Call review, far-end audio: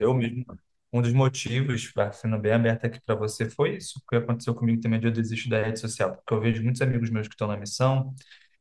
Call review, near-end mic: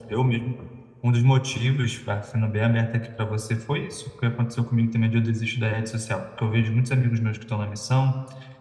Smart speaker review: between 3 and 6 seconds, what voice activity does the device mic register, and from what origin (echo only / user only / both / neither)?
echo only